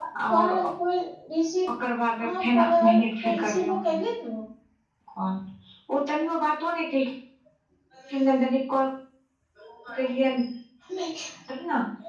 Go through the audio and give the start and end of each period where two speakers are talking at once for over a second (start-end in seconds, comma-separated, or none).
2.2-3.9